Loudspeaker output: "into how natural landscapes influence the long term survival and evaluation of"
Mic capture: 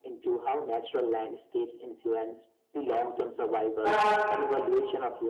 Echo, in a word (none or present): present